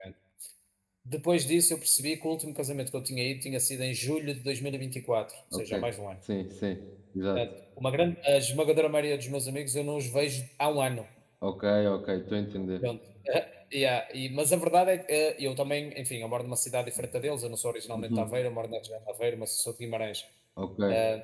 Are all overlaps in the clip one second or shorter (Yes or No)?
Yes